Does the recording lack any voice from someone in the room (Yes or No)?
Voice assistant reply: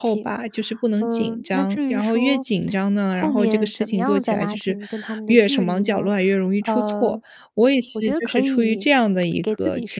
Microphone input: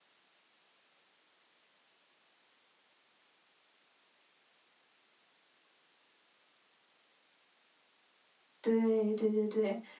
No